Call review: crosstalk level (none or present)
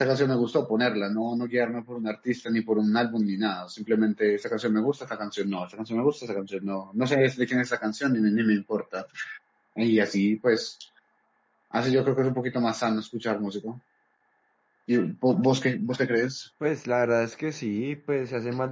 none